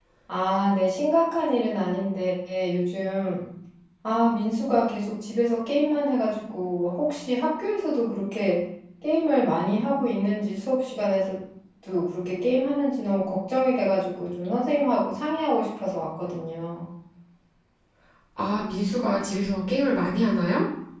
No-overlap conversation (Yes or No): Yes